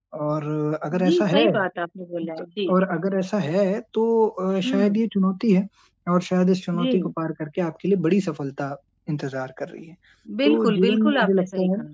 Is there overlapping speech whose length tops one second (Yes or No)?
Yes